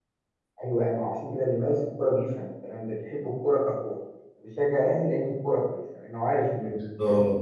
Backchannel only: No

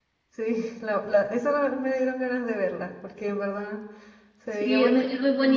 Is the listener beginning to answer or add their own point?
Yes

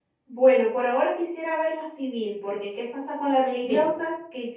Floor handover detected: No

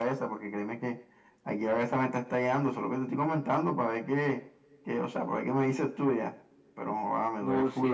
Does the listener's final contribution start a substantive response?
Yes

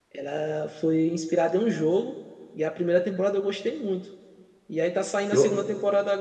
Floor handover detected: No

